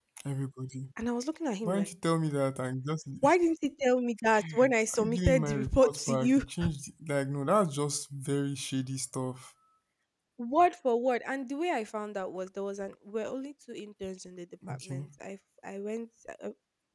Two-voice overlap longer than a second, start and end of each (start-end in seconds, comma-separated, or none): 4.9-6.4